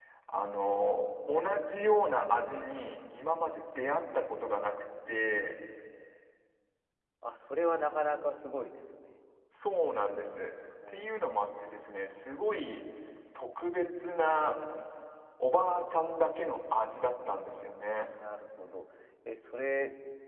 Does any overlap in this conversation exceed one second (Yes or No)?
No